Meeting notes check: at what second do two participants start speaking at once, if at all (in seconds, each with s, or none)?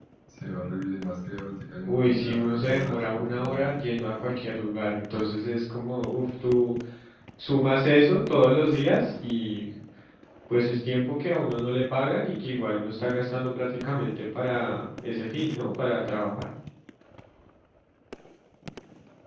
1.9 s